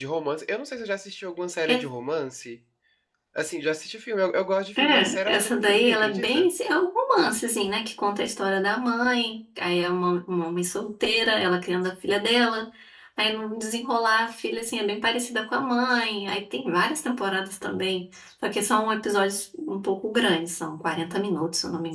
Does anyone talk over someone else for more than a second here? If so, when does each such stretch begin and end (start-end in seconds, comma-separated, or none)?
4.8-6.5